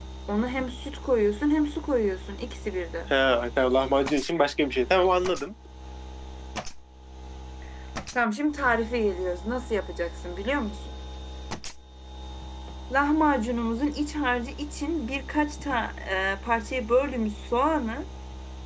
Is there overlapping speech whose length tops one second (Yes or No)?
No